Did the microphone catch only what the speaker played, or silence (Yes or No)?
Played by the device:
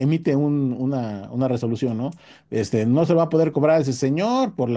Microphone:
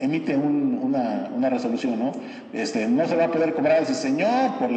Yes